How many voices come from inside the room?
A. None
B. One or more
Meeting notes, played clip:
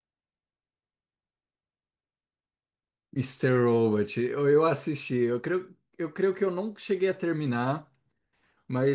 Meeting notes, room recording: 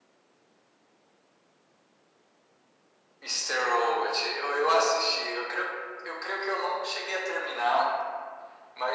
A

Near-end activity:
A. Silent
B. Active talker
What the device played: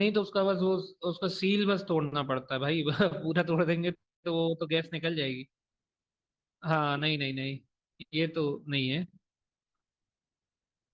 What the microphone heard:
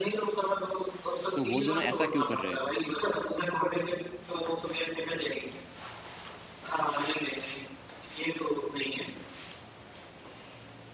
B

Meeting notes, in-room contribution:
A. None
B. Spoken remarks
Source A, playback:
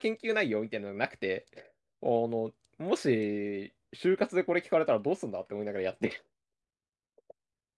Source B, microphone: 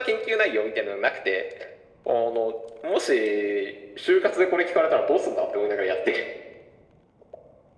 A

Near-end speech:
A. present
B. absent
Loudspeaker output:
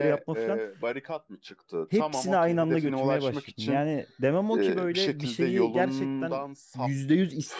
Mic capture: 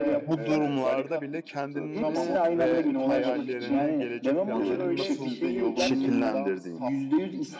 A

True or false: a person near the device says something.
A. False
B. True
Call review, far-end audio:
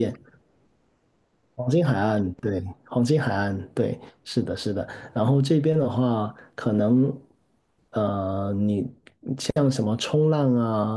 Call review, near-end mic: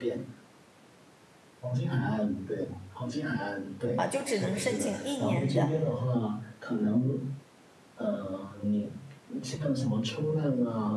B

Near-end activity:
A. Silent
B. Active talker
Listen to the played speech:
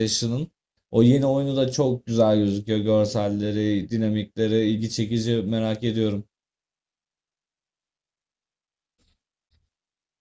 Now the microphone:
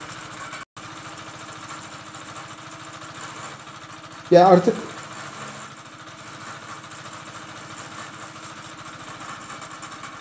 B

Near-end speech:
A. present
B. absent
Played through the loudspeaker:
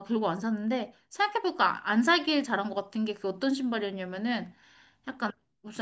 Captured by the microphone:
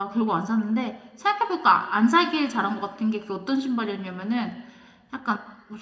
B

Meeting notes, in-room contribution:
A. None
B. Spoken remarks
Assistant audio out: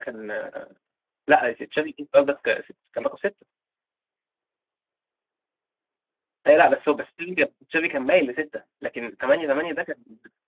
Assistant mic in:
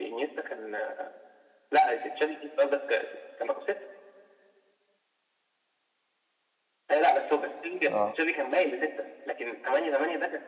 B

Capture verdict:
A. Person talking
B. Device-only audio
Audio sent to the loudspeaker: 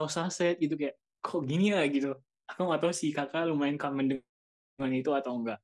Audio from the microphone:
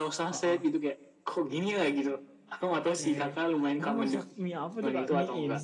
A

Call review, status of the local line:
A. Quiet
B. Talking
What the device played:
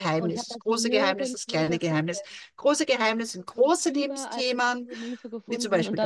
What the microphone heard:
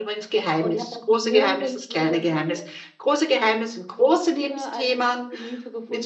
A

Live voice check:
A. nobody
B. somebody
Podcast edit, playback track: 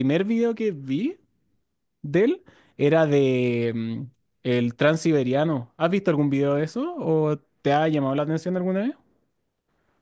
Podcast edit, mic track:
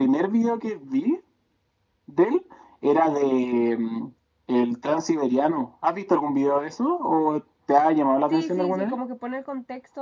B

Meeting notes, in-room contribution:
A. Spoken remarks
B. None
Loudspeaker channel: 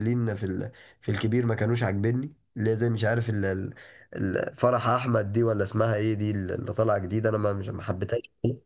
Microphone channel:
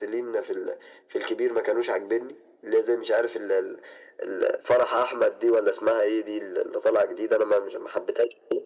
B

